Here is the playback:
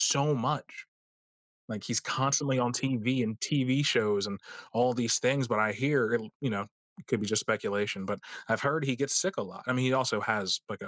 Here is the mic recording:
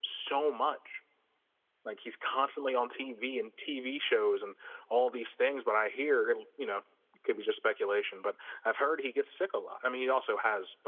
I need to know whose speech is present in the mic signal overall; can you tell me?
echo only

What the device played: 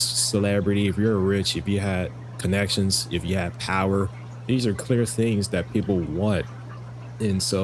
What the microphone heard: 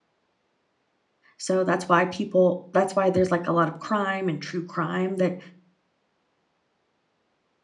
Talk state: user only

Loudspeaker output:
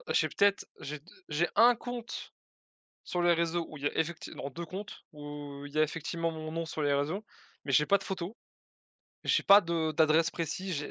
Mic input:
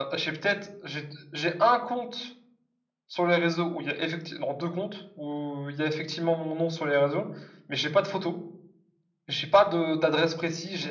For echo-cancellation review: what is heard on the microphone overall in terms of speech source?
echo only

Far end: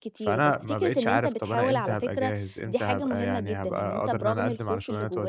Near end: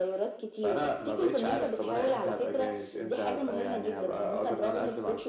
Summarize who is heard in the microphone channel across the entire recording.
echo only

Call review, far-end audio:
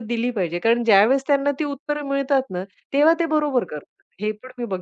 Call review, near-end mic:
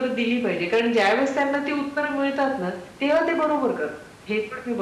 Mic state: echo only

